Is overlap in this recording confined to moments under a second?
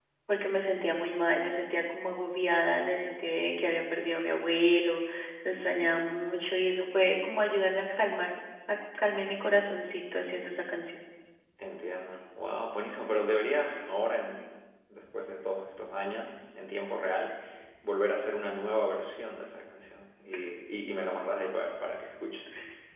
Yes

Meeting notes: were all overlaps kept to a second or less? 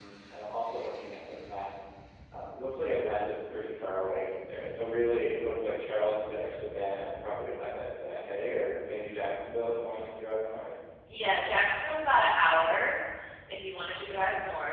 Yes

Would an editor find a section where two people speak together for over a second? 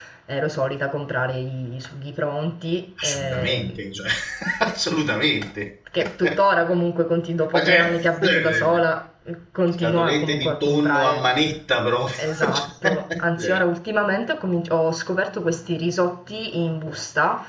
Yes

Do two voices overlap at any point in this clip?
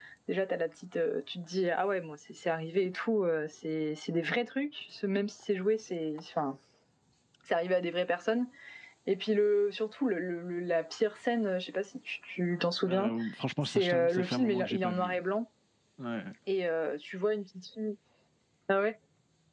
Yes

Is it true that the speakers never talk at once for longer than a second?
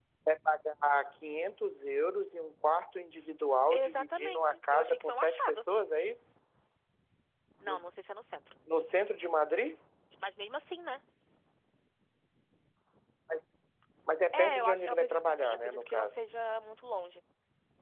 No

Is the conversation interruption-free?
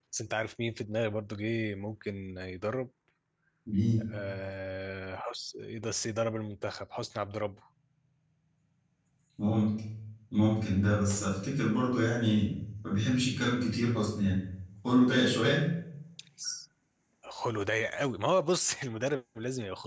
Yes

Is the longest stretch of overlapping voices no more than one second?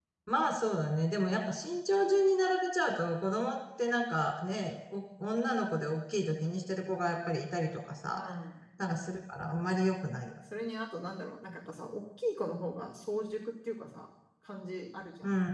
Yes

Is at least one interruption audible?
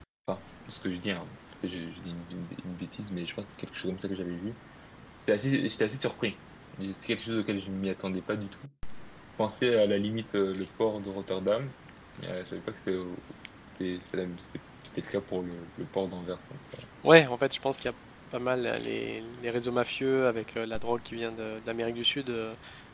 No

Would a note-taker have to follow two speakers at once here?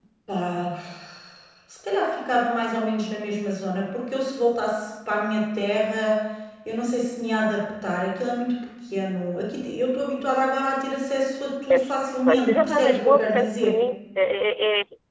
Yes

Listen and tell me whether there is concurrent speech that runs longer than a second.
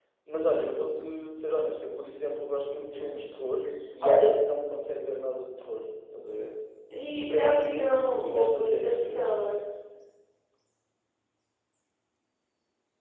Yes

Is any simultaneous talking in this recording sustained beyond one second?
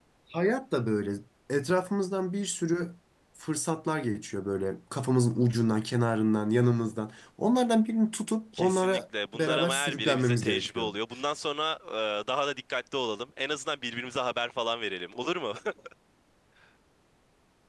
Yes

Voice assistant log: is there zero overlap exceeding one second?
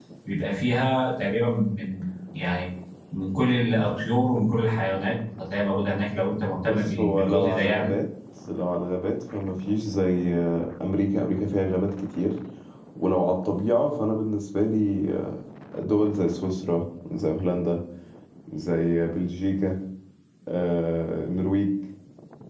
No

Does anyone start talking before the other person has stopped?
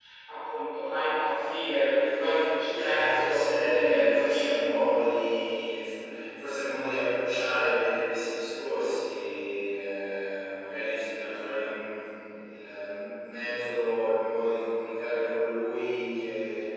Yes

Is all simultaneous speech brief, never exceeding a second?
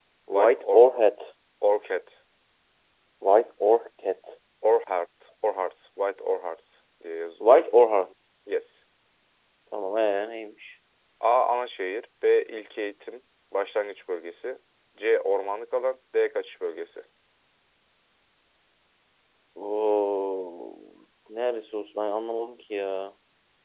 Yes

